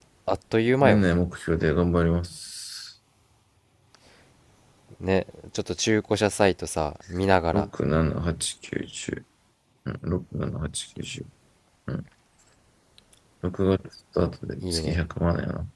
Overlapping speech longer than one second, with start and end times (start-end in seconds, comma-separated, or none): none